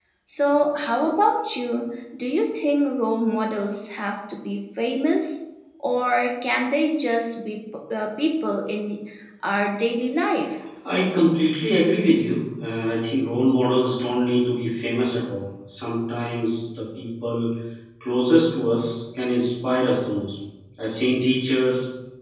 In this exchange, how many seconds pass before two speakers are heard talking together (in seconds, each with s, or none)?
none